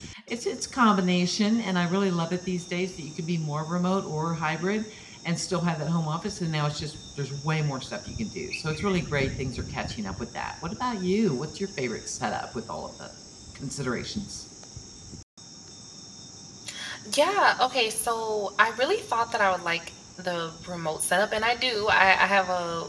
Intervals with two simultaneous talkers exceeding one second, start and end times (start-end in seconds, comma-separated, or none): none